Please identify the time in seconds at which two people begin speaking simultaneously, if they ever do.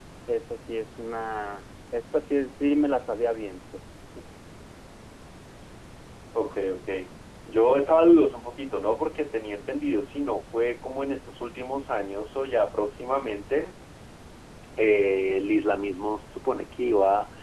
none

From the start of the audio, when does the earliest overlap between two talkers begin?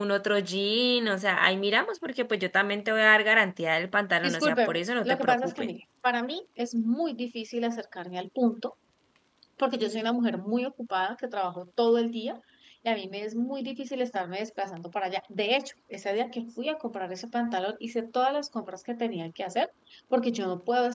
4.2 s

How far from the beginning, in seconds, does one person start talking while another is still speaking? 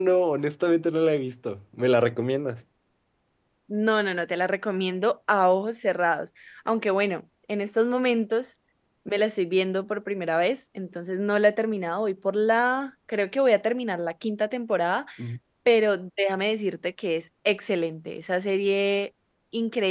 none

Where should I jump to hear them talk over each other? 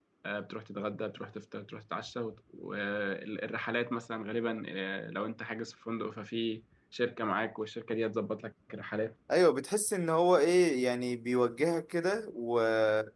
none

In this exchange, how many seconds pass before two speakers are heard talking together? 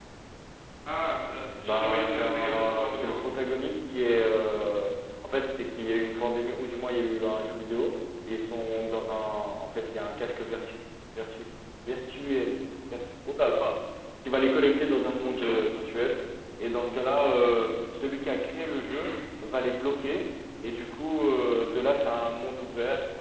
1.6 s

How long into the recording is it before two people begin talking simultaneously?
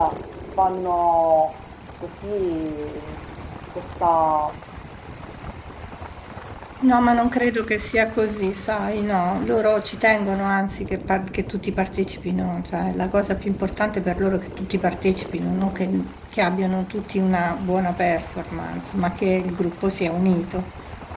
none

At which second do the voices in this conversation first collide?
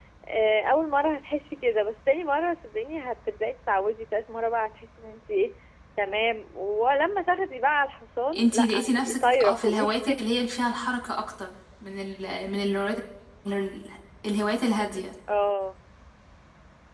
8.3 s

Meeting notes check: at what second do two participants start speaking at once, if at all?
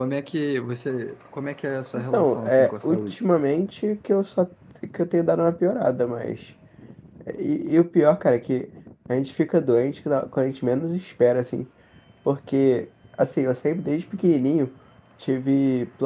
1.9 s

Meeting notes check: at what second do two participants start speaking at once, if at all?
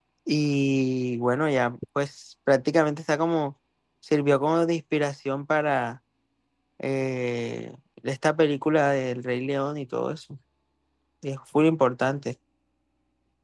none

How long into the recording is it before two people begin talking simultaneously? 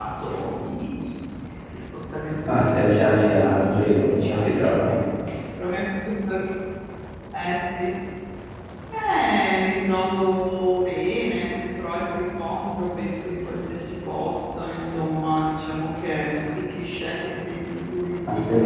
2.5 s

